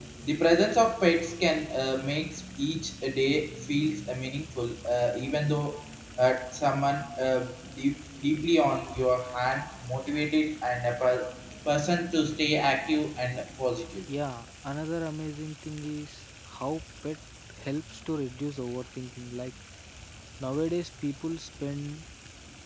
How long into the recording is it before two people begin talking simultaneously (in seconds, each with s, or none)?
none